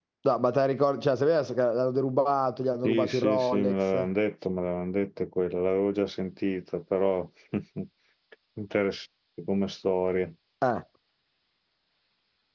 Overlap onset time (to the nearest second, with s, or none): 3 s